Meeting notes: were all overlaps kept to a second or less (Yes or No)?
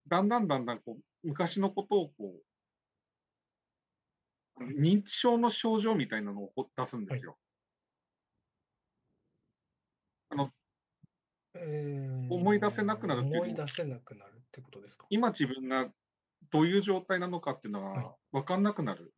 No